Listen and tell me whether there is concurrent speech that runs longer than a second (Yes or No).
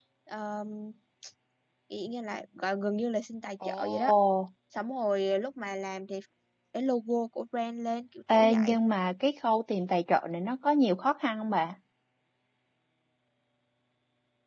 No